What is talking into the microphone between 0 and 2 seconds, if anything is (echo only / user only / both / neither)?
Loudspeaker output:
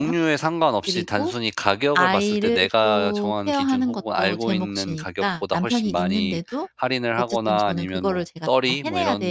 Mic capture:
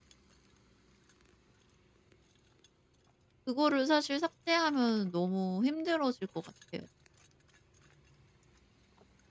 neither